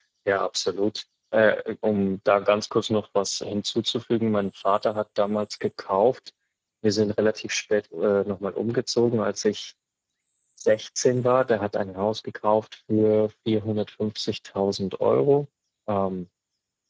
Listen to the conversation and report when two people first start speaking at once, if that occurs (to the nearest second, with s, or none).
none